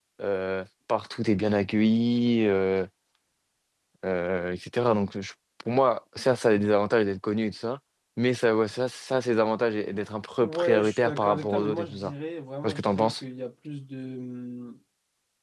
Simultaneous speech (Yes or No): Yes